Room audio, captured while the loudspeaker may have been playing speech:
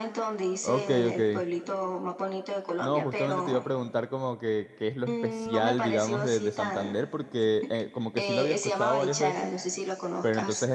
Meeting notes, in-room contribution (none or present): present